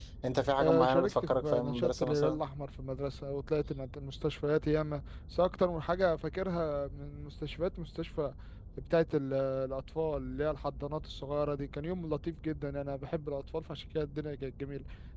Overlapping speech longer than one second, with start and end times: 0.6-2.4

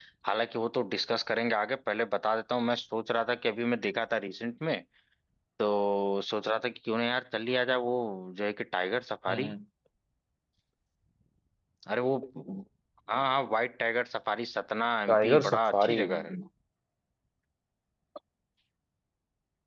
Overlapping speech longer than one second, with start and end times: 15.1-16.3

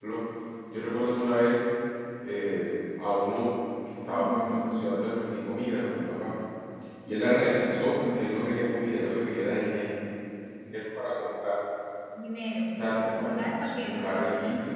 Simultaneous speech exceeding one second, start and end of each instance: 12.8-14.1

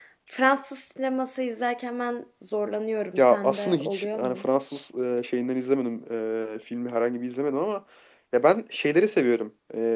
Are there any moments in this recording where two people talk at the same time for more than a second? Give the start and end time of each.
3.2-4.9

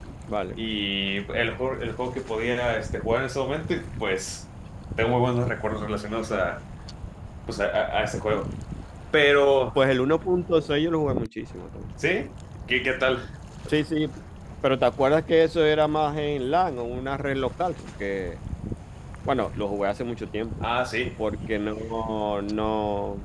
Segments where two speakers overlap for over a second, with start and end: none

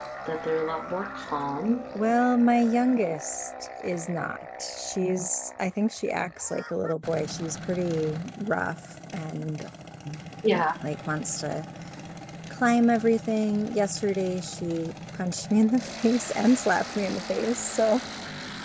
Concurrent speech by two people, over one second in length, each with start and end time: none

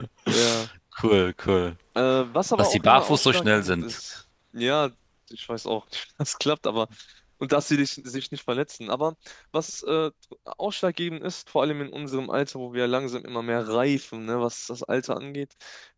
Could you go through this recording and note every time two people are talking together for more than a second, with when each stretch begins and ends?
2.6-4.0

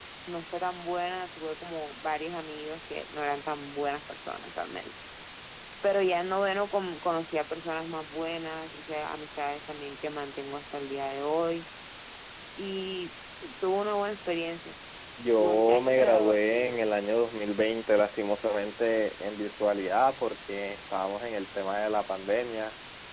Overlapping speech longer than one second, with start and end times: 15.4-16.9

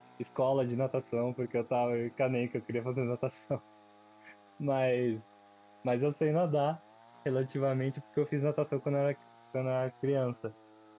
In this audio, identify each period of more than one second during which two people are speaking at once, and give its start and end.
none

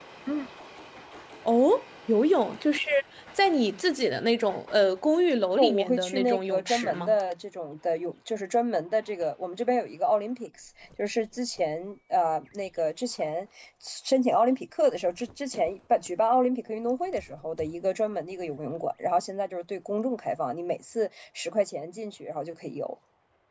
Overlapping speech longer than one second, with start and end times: 5.6-7.1

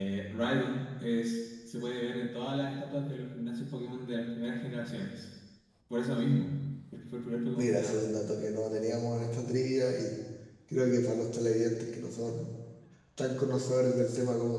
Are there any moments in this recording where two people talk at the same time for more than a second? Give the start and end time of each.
none

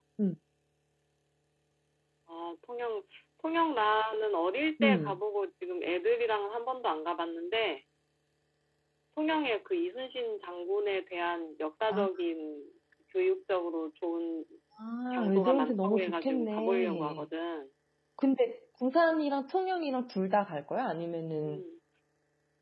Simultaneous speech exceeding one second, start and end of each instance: 15.1-17.2

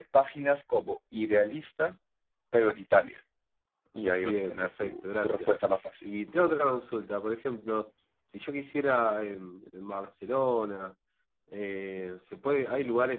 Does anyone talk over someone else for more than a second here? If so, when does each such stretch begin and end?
4.2-5.5

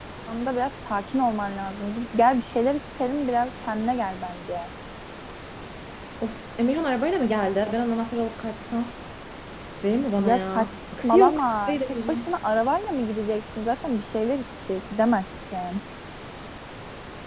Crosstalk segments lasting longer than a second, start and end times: 10.2-12.3

